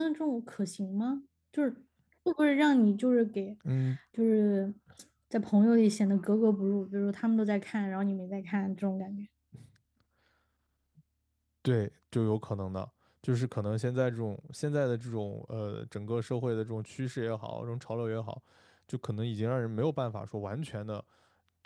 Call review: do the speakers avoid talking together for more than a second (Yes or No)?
Yes